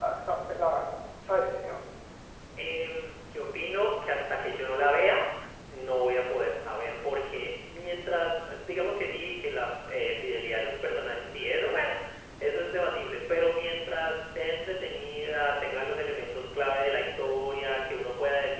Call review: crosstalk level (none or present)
none